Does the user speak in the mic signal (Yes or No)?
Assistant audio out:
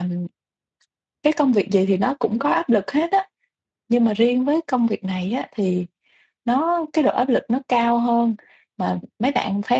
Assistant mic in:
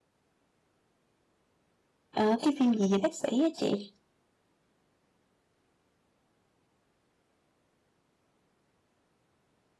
Yes